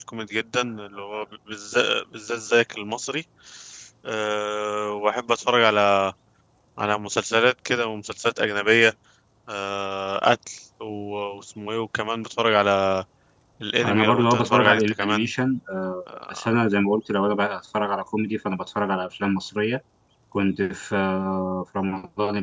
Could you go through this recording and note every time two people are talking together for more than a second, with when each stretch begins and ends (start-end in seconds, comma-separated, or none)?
13.8-15.3